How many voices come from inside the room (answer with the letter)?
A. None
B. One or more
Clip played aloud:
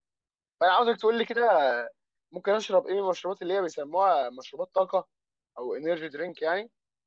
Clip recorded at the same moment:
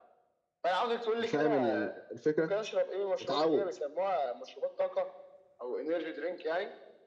B